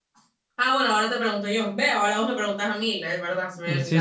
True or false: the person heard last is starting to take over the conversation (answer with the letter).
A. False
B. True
B